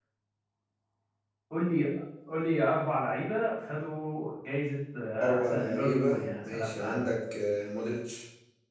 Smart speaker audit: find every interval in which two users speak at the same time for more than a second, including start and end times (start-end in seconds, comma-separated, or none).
5.2-7.0